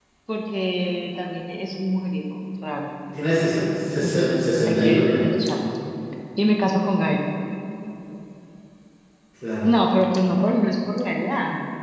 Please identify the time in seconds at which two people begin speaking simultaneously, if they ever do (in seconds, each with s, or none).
4.0 s